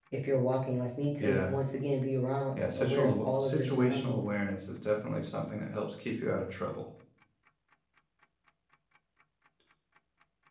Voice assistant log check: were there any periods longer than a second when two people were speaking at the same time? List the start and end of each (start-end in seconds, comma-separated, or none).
2.6-4.2